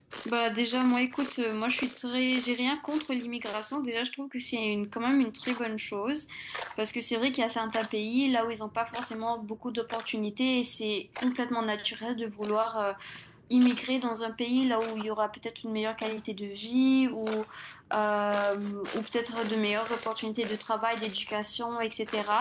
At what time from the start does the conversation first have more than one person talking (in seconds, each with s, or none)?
none